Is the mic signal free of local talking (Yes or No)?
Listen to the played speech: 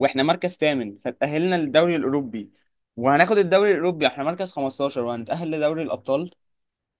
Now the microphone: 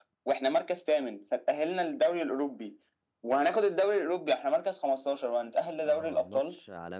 No